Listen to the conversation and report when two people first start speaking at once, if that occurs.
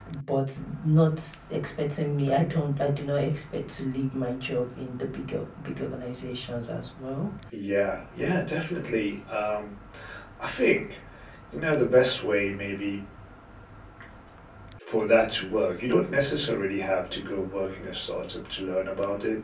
none

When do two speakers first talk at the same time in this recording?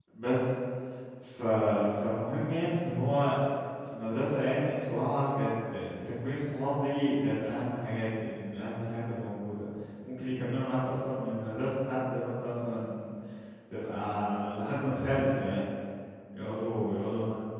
none

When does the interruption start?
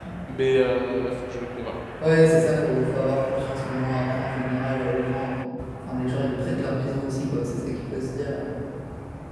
none

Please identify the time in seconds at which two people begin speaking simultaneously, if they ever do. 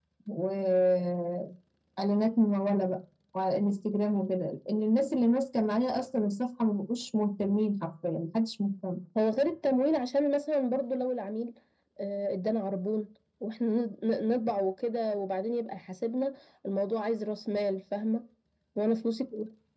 none

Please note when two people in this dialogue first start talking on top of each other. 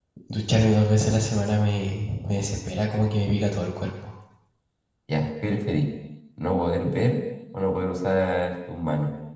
none

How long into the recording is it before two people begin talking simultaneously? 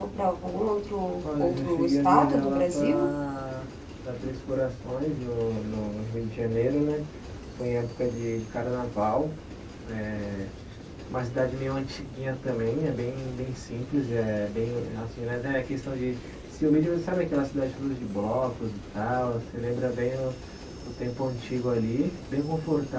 1.2 s

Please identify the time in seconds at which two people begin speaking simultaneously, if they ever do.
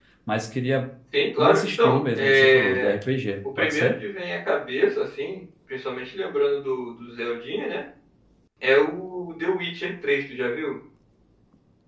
1.4 s

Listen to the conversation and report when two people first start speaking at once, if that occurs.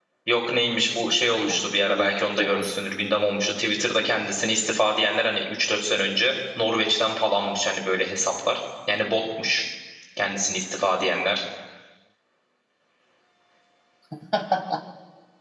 1.3 s

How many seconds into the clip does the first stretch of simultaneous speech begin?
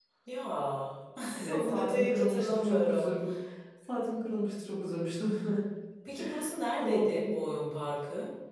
1.4 s

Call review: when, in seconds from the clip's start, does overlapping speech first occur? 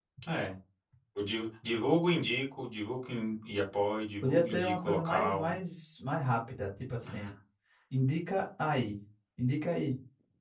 4.2 s

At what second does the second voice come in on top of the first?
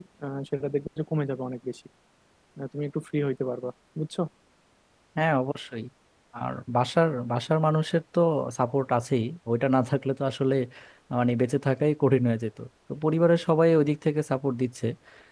none

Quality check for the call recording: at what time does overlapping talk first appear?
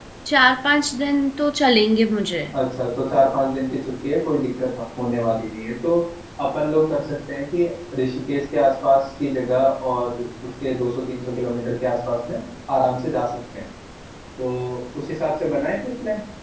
none

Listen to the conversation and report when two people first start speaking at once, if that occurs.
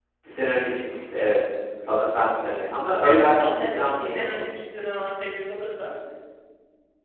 3.0 s

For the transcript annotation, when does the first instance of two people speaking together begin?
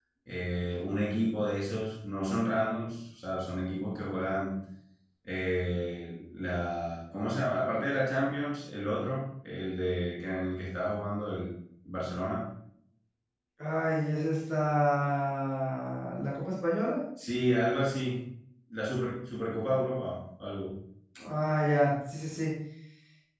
none

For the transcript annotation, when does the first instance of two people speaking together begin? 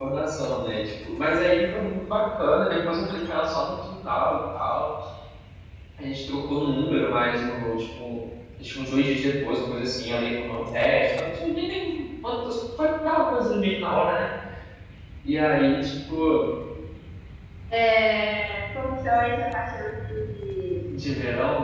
none

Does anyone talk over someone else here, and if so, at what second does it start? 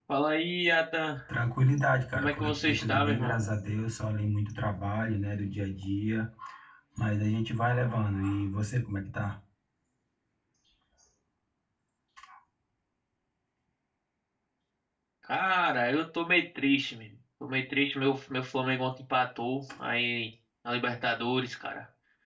2.1 s

